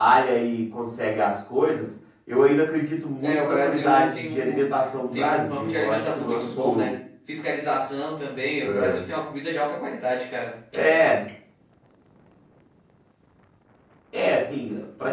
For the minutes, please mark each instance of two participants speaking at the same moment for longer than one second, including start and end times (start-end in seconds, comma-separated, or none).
3.2-4.6, 5.1-6.9